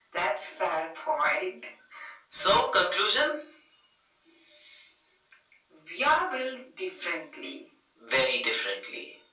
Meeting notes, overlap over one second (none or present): none